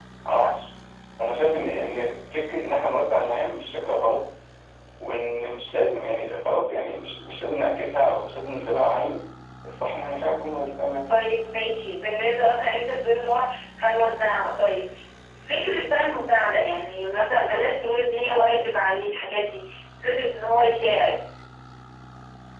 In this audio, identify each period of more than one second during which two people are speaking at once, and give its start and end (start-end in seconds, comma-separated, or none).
none